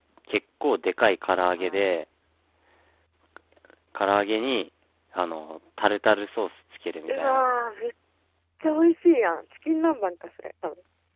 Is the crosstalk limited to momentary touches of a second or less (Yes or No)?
Yes